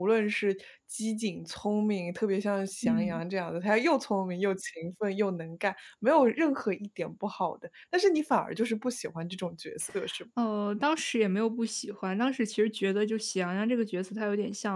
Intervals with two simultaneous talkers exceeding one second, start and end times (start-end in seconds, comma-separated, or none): none